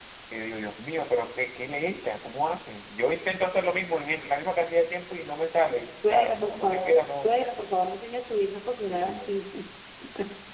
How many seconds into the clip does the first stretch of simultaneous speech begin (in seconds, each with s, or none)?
5.8 s